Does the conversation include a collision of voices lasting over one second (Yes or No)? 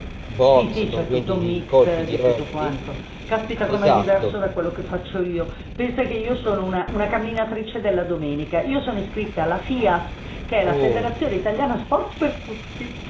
Yes